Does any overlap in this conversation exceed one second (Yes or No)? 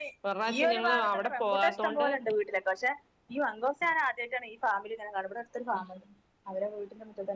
Yes